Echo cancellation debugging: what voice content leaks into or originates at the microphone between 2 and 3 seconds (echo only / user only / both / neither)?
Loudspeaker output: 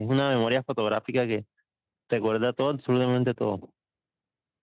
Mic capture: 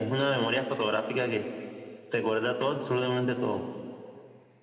echo only